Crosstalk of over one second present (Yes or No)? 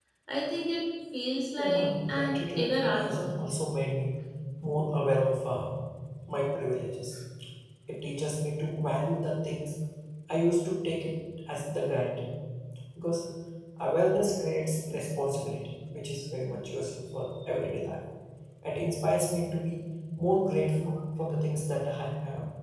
Yes